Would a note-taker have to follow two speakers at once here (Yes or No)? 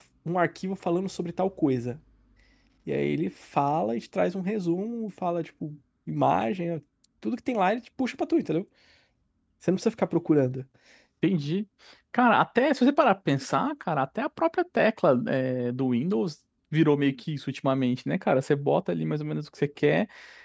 No